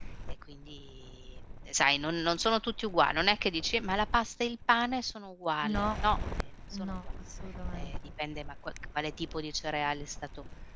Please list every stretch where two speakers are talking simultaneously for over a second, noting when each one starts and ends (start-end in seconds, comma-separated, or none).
none